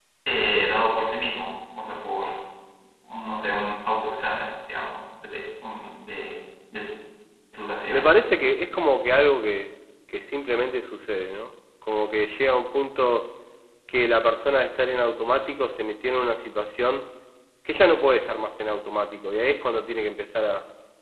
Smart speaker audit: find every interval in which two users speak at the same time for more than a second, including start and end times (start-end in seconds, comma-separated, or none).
none